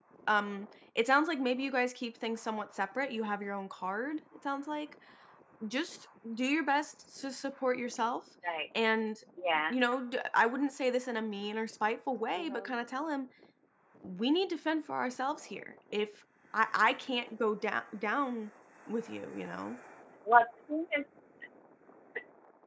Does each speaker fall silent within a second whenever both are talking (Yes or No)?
Yes